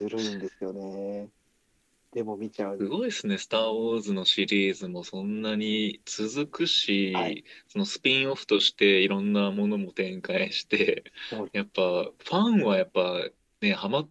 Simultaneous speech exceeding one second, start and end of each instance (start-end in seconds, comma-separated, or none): none